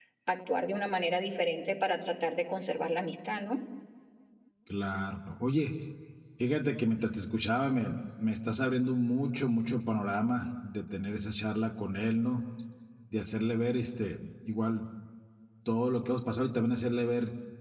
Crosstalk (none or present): none